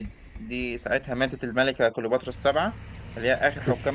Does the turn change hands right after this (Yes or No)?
No